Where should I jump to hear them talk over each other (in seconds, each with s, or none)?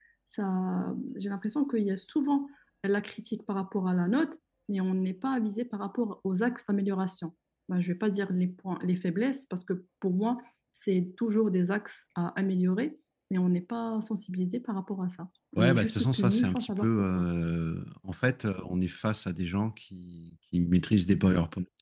15.6 s